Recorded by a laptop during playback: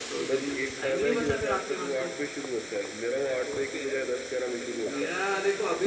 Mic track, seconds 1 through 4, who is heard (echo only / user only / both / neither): both